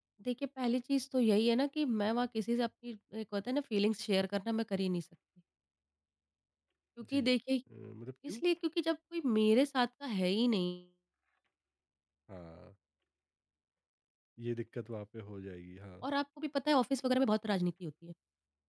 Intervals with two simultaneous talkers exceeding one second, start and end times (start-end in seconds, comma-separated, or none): none